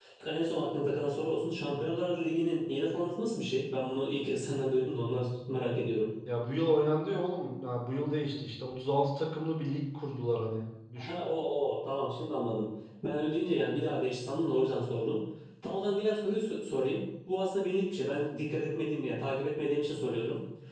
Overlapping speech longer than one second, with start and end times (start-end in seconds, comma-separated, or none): none